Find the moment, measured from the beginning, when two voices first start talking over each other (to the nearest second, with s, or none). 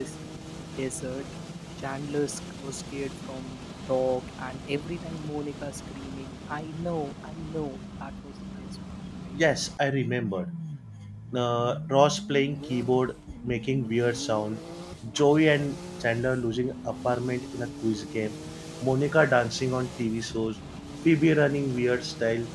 none